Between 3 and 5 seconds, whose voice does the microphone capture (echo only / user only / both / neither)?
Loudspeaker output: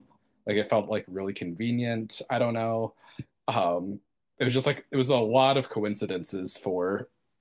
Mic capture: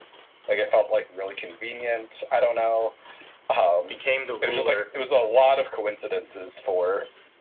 both